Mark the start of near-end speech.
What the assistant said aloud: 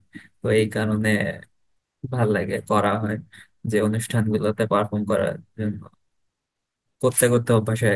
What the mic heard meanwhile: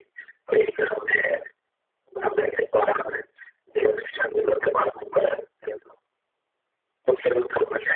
none

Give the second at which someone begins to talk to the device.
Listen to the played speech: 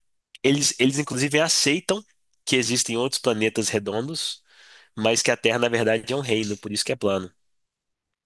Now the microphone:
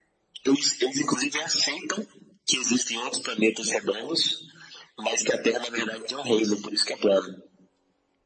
none

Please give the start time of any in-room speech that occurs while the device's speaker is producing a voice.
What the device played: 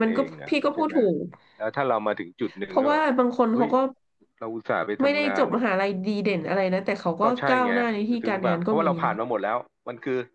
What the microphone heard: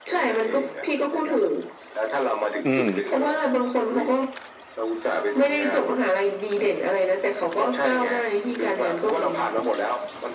2.6 s

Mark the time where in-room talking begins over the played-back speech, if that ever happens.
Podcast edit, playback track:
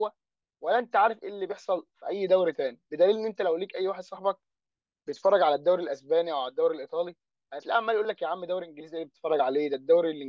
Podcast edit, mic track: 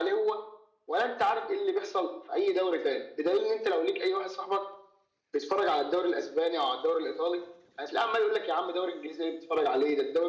none

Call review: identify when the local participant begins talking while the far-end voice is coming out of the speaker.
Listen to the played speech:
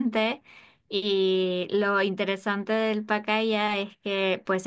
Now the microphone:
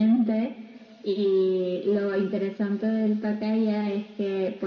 none

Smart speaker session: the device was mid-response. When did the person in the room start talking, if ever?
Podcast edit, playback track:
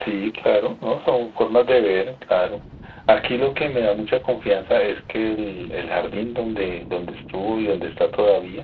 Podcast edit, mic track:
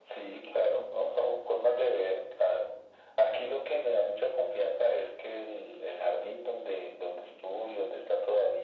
none

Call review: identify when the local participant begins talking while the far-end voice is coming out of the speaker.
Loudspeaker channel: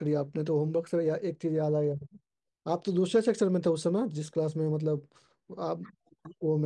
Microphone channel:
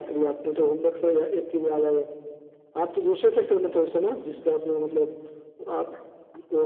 none

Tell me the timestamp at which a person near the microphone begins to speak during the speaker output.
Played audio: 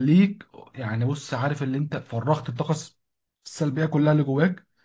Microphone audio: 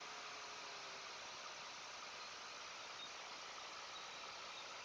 none

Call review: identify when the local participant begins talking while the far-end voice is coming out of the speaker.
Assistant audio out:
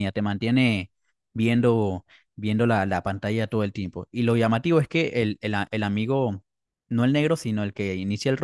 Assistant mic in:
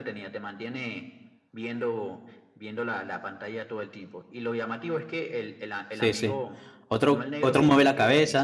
5.9 s

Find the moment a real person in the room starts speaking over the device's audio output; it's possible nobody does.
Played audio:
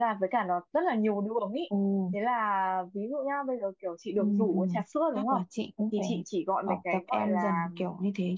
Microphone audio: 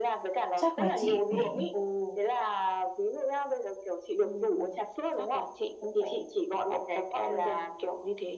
0.6 s

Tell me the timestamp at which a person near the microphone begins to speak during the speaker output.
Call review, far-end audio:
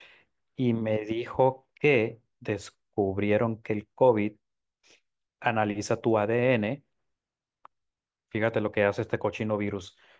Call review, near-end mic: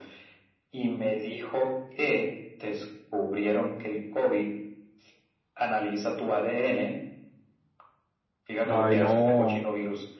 8.7 s

